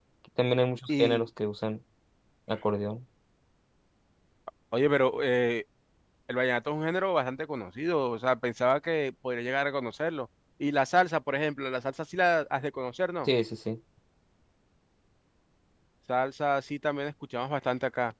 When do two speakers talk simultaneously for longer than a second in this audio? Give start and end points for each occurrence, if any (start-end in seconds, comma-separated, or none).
none